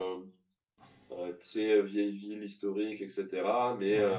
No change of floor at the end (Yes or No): Yes